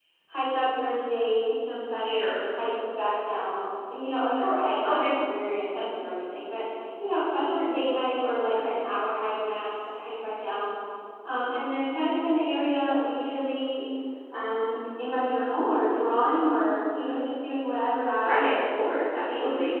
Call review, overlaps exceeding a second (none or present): none